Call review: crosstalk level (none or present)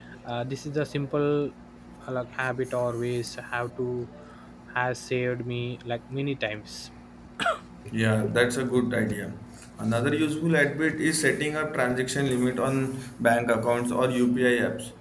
none